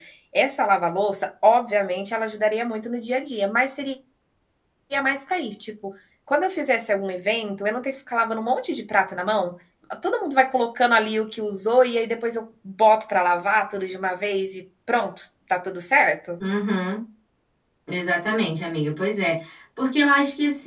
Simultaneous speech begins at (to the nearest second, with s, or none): none